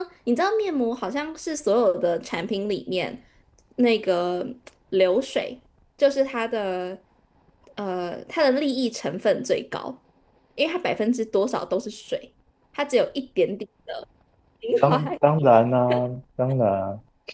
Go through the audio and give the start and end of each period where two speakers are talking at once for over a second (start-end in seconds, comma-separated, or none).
none